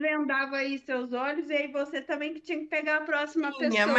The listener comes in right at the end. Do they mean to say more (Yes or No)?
Yes